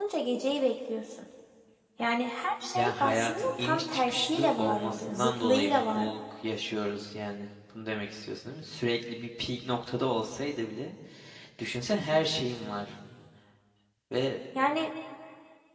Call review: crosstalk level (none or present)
present